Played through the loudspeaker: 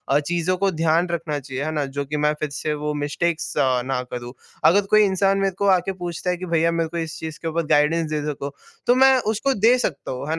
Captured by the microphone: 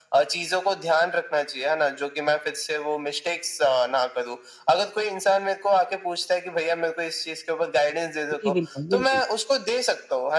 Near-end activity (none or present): present